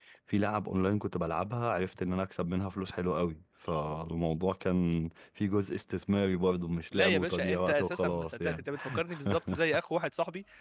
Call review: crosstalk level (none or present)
present